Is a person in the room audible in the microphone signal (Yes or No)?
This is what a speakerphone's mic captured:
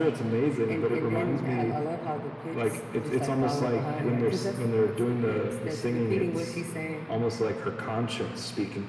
No